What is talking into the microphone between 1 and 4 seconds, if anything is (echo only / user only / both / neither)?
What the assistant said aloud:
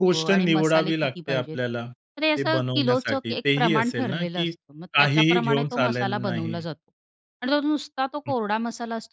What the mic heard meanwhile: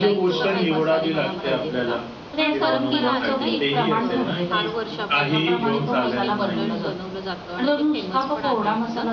both